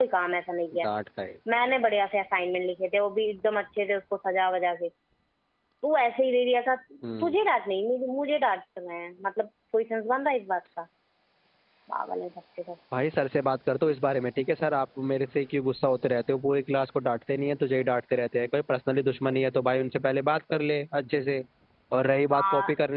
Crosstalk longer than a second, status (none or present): none